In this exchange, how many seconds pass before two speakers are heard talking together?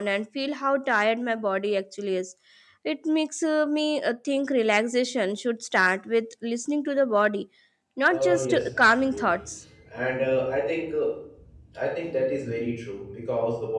8.1 s

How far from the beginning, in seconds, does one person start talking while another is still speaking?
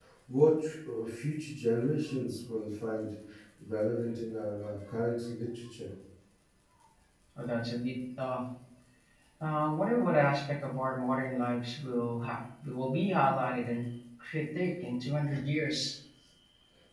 none

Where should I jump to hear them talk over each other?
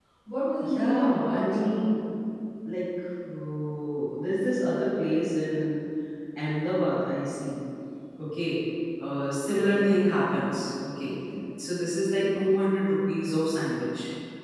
0.6 s

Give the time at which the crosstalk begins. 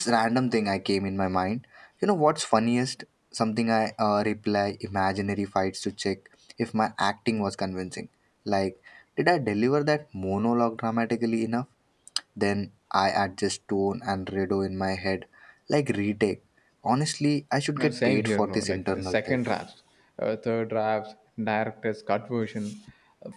17.8 s

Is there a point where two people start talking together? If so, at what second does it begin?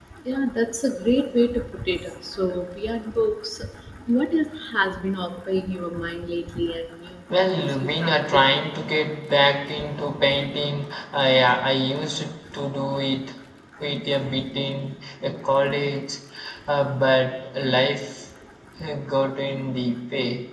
7.3 s

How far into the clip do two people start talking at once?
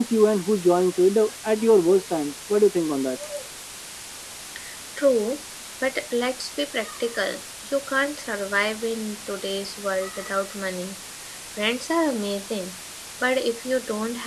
none

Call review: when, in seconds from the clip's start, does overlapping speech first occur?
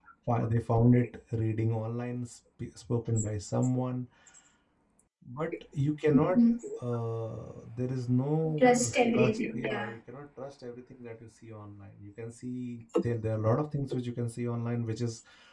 8.6 s

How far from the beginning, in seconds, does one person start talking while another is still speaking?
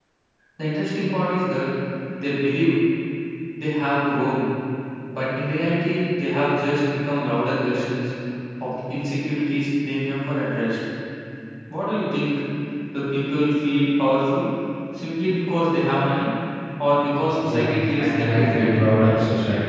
17.4 s

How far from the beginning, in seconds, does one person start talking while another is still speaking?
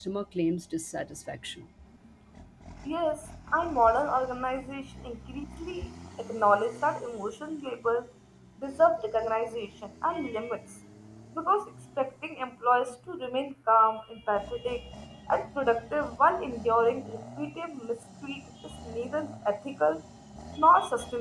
none

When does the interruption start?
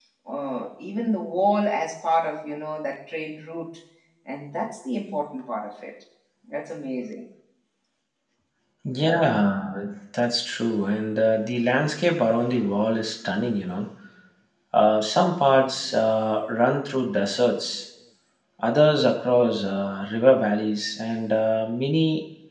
none

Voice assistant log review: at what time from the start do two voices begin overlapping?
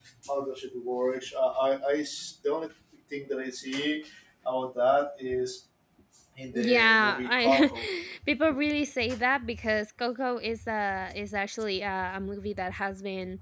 6.5 s

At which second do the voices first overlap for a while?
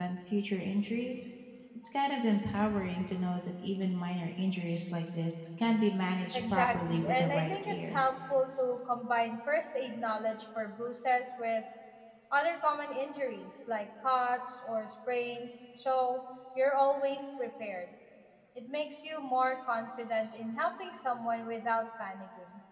6.3 s

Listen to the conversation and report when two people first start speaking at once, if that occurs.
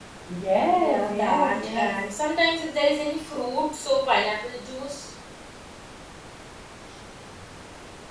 0.7 s

